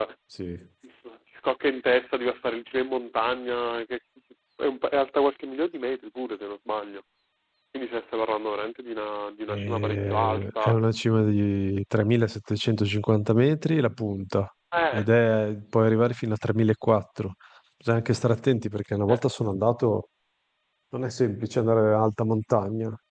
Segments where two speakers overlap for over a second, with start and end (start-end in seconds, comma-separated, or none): 9.5-10.8